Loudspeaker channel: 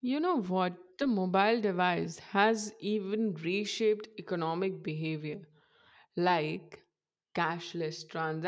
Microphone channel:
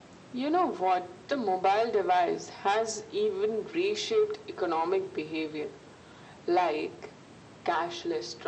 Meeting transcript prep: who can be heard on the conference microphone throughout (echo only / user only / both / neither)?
echo only